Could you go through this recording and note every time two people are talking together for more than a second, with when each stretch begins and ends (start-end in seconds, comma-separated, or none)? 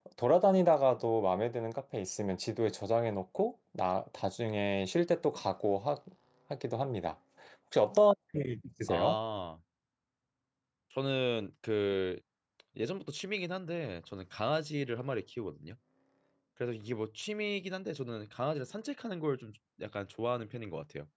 none